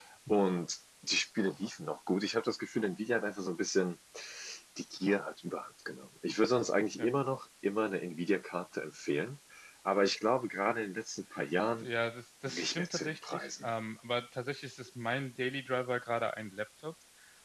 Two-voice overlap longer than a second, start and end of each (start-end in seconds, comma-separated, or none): 12.5-13.7